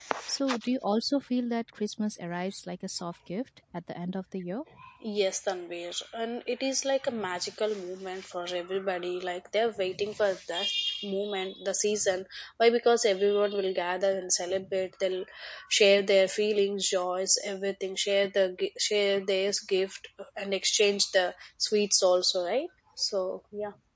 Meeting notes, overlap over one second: none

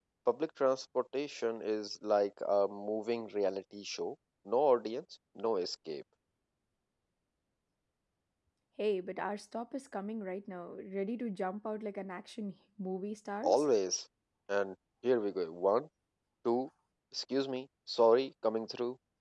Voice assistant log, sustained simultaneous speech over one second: none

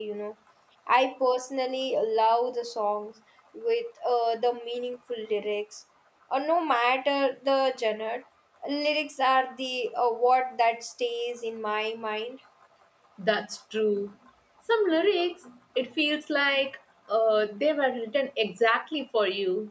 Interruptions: none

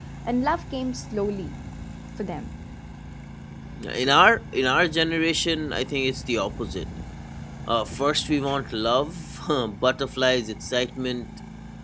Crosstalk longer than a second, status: none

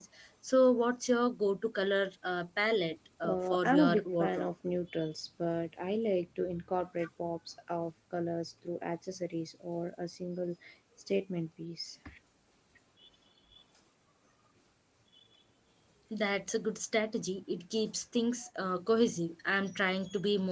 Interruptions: present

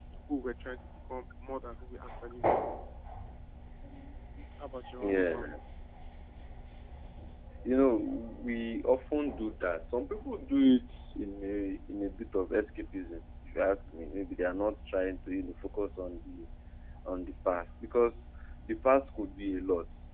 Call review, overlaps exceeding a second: none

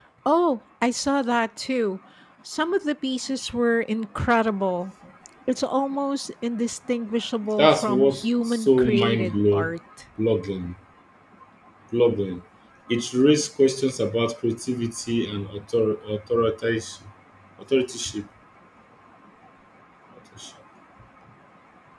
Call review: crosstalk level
present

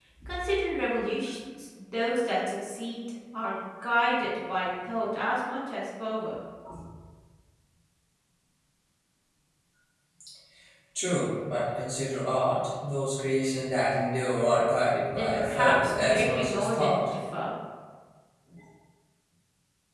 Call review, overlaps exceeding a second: present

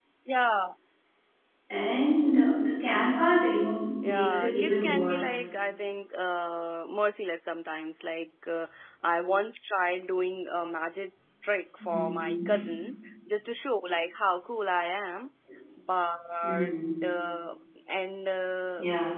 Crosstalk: present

